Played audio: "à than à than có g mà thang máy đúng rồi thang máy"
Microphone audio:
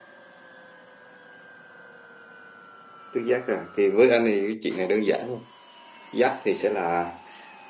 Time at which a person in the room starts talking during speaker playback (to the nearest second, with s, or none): 3 s